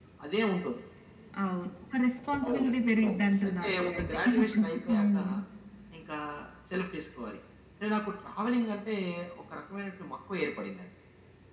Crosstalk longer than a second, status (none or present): present